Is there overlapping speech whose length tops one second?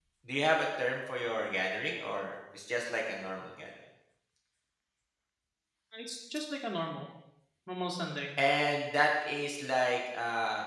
No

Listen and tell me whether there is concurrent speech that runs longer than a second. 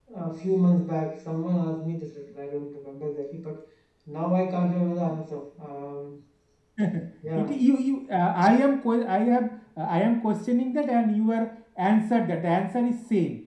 No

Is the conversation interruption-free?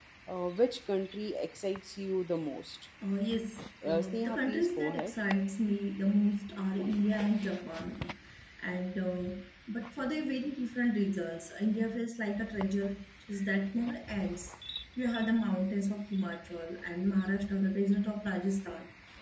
No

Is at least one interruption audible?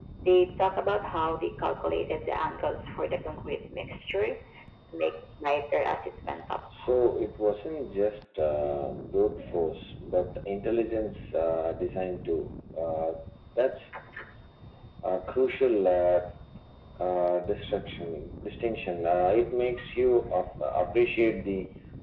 No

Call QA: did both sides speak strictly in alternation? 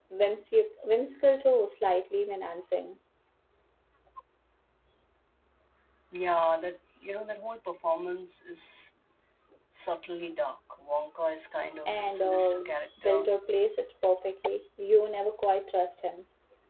No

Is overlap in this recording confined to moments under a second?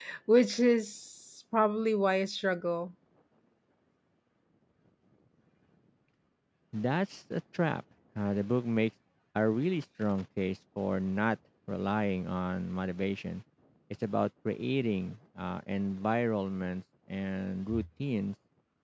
Yes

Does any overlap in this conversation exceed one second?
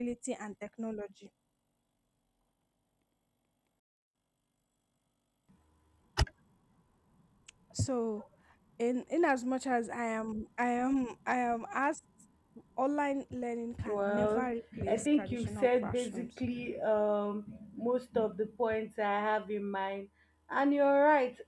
Yes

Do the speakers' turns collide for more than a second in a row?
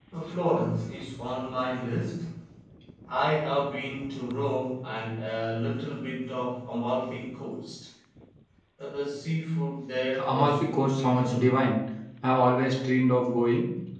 Yes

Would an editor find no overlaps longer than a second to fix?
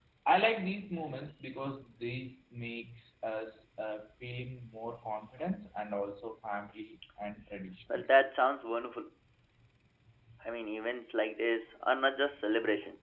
Yes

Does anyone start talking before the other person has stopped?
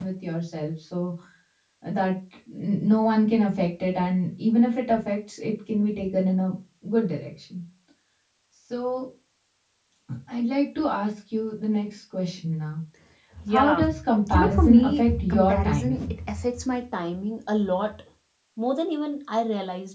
Yes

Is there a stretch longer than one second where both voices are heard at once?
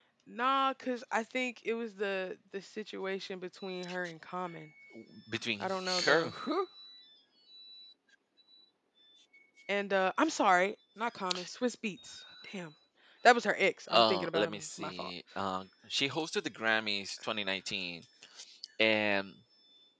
Yes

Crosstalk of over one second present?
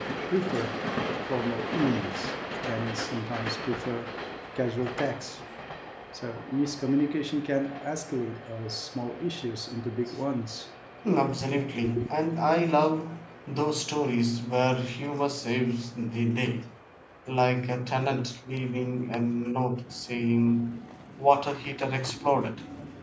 No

